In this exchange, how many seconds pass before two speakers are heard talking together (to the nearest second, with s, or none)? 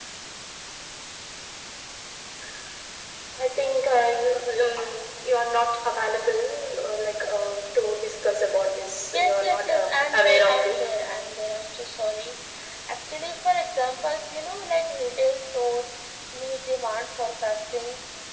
9 s